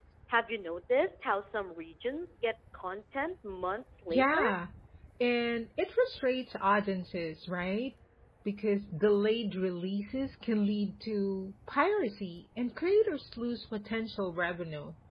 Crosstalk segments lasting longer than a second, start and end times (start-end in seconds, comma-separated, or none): none